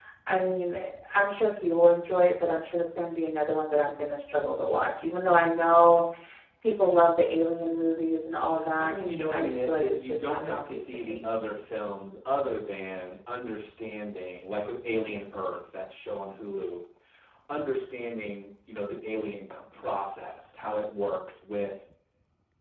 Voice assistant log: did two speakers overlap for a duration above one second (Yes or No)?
Yes